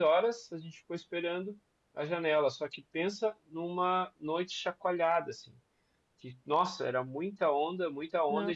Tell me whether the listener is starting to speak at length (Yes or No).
No